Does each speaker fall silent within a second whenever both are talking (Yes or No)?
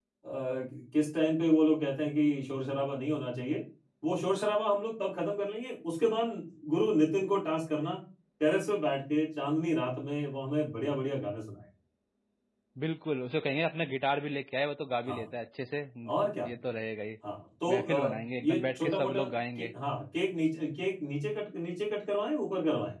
No